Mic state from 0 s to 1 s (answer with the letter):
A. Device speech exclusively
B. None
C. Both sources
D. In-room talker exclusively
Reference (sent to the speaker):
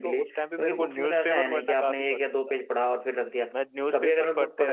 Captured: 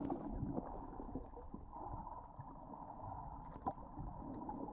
B